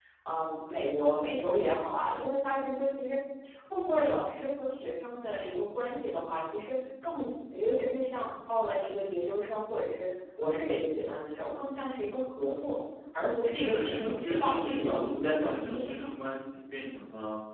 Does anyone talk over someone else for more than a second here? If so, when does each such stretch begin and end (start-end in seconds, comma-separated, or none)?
13.5-15.9